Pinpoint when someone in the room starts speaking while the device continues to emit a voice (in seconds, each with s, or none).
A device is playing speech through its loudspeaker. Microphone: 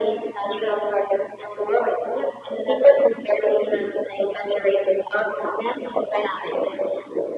none